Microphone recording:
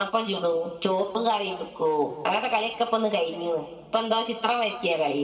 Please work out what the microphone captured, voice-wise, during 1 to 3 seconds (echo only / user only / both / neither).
user only